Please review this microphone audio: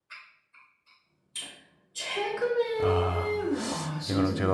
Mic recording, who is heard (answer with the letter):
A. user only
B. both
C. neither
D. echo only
B